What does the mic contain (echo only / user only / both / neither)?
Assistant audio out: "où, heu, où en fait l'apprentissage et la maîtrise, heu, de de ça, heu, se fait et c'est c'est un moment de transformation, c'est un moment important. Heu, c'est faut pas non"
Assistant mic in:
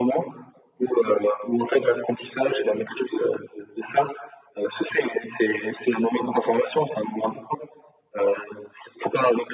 echo only